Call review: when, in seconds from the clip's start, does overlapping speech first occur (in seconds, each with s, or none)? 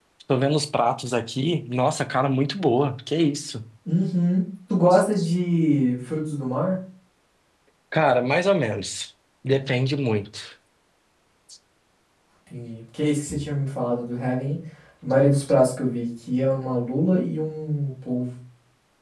none